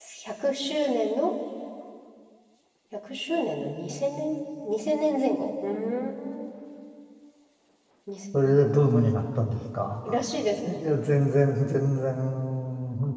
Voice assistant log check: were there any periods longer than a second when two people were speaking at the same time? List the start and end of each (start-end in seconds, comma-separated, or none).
none